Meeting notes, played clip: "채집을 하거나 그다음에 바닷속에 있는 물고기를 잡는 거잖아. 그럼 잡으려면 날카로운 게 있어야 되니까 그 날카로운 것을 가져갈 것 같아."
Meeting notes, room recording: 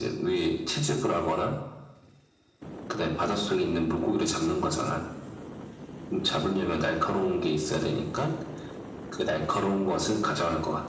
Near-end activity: none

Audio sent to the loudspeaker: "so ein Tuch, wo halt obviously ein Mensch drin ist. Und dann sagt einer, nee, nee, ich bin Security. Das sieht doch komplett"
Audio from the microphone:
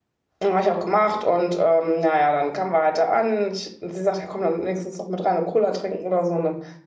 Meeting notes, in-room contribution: present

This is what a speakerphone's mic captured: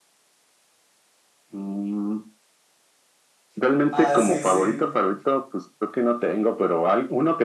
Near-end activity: present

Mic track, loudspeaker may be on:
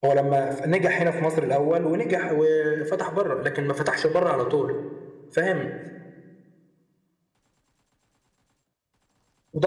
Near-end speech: present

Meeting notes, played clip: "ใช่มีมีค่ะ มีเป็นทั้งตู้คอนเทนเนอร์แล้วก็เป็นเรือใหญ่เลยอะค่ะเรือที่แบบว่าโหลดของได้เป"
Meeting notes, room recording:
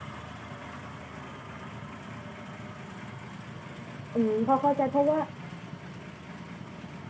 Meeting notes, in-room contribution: present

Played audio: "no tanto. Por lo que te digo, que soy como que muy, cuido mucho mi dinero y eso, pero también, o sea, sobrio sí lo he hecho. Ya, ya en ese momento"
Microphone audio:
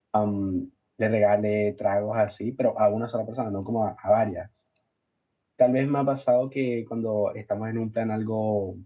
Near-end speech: present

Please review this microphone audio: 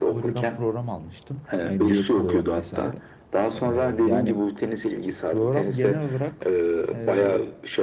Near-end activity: present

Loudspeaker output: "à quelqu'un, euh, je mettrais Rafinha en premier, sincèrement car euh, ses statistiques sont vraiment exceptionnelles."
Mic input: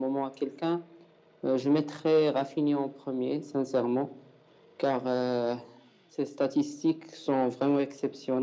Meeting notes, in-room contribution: none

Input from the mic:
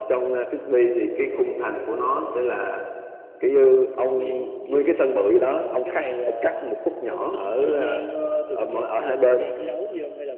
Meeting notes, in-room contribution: none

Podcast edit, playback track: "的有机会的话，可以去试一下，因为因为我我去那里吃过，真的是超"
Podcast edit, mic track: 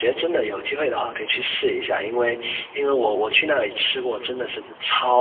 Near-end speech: none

